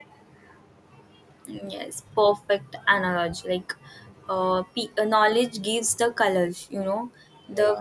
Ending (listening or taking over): listening